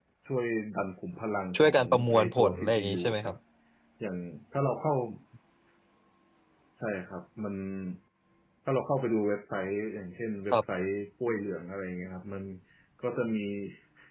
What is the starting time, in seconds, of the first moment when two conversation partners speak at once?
1.6 s

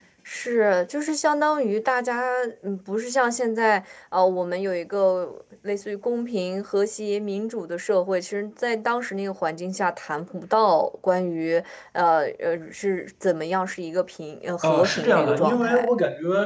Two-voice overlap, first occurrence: 14.6 s

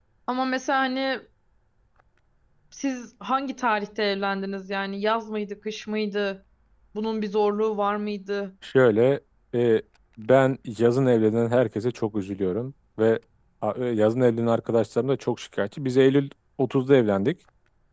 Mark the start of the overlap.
none

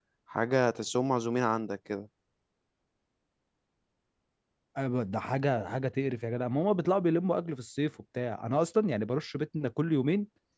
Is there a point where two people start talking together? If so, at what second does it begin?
none

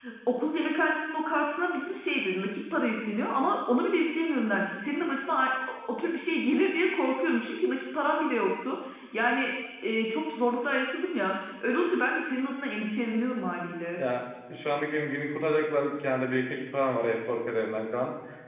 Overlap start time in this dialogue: none

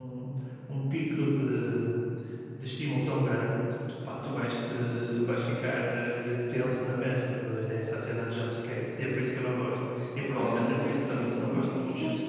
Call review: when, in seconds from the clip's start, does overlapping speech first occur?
10.3 s

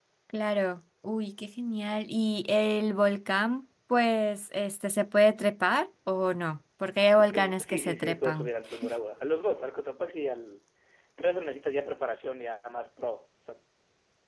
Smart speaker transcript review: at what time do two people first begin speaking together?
7.2 s

